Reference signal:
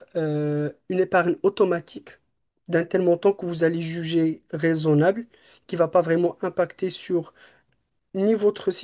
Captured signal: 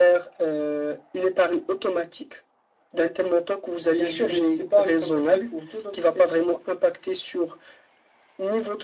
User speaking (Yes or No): Yes